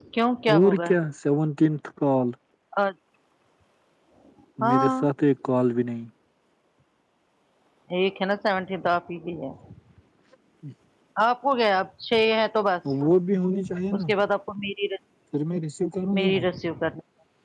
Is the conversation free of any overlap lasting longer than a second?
Yes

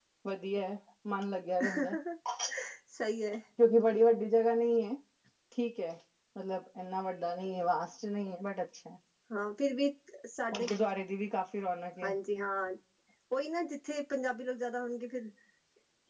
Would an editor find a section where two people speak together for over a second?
No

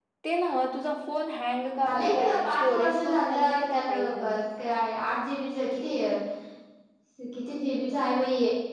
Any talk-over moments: Yes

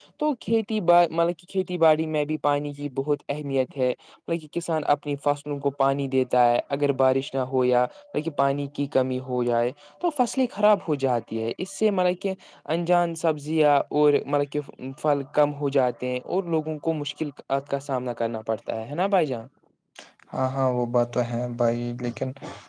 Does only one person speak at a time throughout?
Yes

